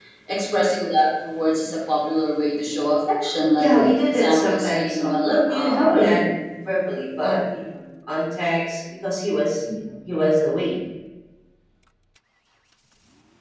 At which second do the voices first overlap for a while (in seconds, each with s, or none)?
3.6 s